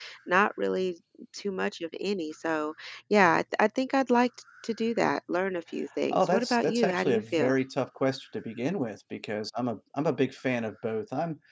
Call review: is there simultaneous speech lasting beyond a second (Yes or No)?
Yes